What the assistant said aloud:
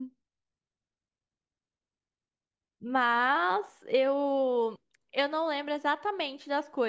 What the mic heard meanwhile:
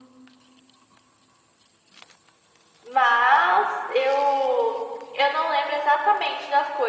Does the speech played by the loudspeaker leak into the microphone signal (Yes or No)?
Yes